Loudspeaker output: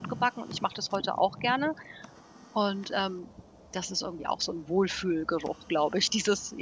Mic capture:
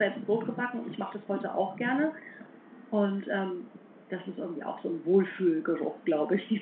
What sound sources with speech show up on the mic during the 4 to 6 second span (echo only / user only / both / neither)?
echo only